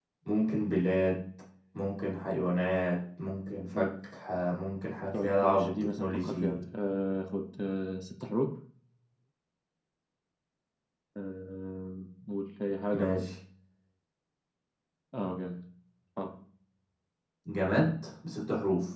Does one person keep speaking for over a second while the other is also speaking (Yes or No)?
Yes